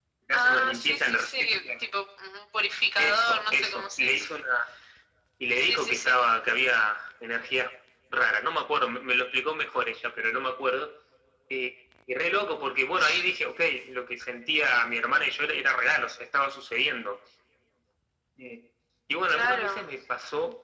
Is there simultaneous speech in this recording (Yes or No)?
Yes